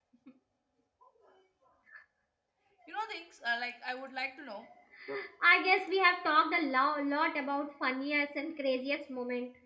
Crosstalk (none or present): none